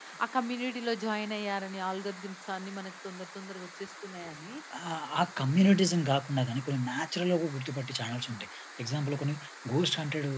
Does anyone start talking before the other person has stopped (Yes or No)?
No